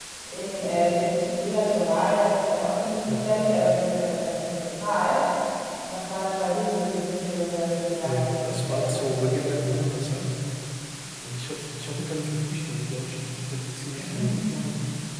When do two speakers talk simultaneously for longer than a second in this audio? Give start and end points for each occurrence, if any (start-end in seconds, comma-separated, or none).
8.0-9.5